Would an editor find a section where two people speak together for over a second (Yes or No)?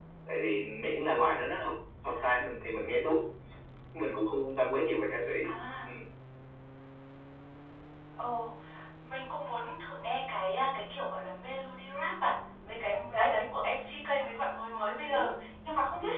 No